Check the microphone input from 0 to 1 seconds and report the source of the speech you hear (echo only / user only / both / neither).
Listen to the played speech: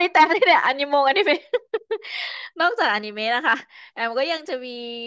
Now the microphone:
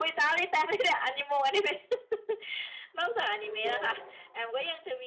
echo only